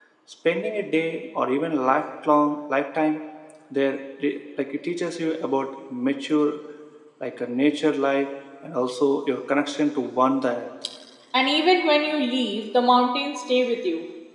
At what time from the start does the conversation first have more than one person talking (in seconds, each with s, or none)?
none